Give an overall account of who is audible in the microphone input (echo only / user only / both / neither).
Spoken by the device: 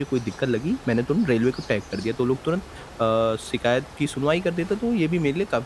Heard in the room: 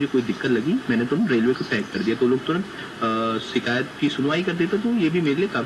echo only